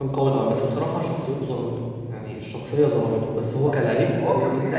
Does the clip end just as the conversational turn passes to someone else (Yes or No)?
Yes